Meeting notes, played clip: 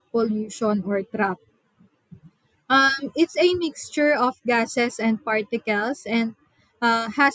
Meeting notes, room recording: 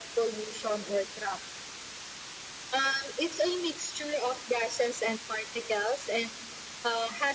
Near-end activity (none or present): none